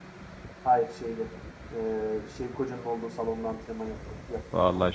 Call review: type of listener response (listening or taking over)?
taking over